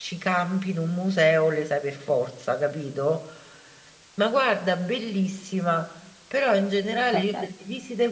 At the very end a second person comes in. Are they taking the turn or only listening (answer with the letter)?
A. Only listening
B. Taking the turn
A